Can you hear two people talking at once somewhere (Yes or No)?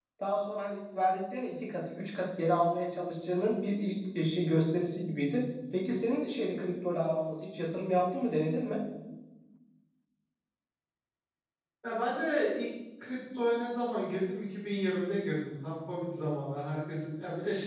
No